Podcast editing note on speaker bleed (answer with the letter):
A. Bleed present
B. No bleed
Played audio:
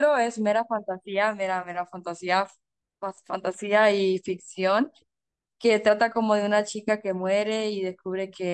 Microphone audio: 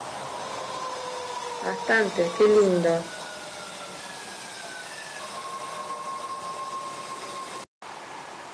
B